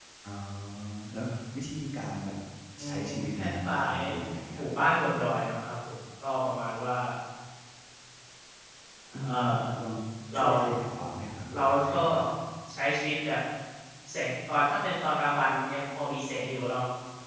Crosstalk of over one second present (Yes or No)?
Yes